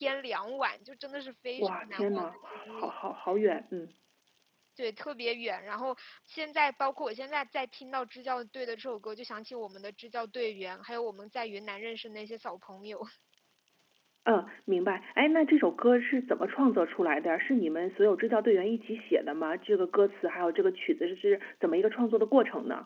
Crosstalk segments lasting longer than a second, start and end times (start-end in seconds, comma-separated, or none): 1.6-2.9